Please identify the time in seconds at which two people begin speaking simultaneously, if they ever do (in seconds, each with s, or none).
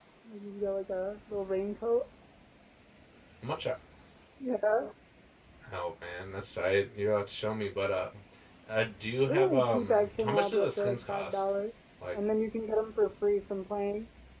9.3 s